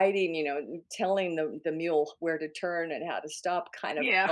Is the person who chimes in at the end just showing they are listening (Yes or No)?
Yes